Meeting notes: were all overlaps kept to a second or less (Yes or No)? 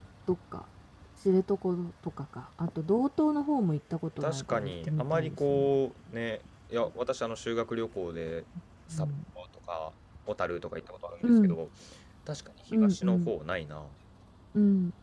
No